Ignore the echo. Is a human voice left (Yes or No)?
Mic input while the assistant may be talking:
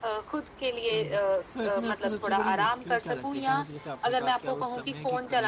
Yes